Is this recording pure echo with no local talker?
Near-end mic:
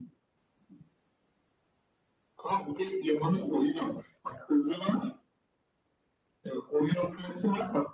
Yes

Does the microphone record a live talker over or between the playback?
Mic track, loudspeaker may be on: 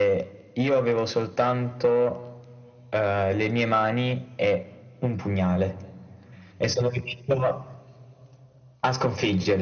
No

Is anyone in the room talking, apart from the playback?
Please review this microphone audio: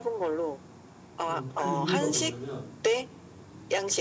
Yes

